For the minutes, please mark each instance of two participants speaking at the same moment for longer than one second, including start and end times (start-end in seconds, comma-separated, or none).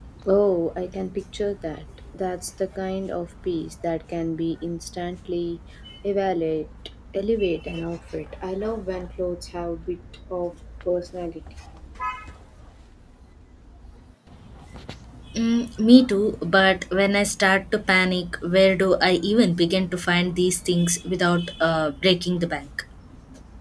none